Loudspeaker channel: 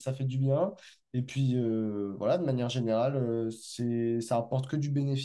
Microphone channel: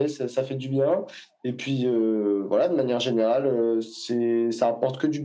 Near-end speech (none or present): none